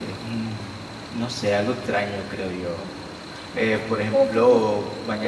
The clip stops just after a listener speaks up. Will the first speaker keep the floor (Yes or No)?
Yes